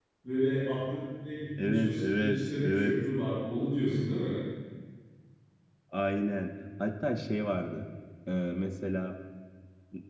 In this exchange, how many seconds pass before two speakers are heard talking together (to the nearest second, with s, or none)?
2 s